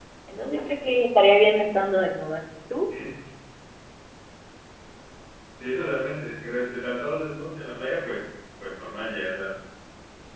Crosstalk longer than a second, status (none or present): none